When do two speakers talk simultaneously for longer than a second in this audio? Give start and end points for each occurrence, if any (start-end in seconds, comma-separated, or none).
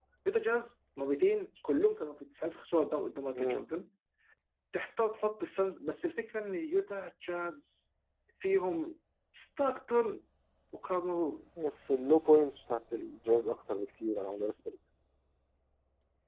none